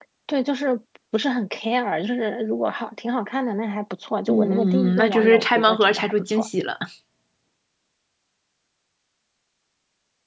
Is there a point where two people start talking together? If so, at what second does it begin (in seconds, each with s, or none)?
4.3 s